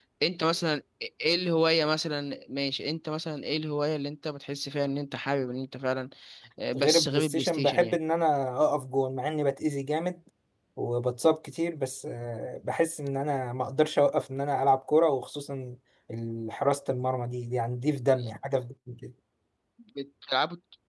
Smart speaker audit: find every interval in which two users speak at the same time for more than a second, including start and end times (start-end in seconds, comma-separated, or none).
6.8-8.0